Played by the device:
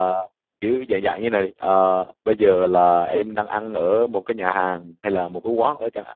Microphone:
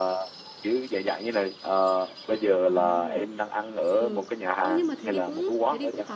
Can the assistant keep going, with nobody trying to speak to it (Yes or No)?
No